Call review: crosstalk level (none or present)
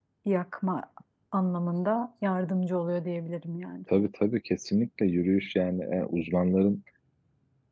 none